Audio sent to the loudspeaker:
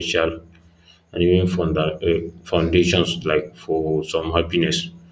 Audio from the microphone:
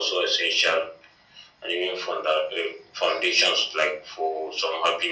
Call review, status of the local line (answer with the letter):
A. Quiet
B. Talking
A